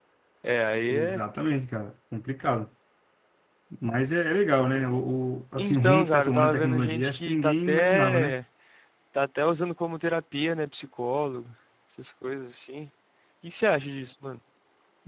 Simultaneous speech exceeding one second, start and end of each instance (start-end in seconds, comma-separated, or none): 5.6-8.4